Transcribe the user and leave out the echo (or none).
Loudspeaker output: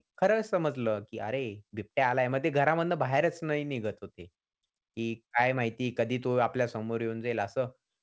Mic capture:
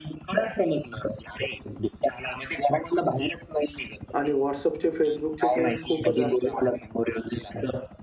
आणि WhatsAppचे, Facebookचे तर खूपच असते.